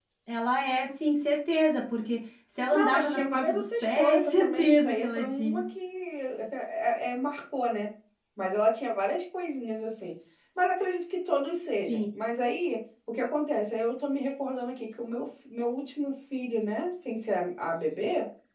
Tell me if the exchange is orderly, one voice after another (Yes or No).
No